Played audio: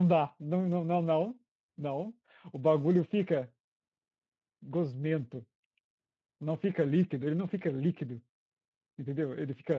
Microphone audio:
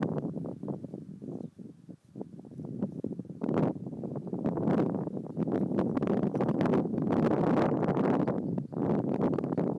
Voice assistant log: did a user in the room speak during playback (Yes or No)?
No